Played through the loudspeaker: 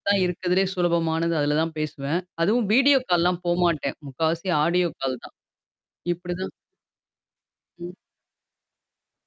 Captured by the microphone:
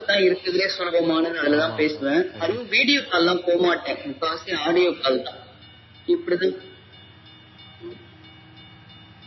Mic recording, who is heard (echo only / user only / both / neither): both